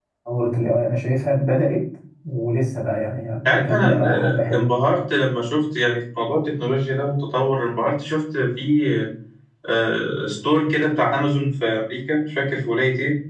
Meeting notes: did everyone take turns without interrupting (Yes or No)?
No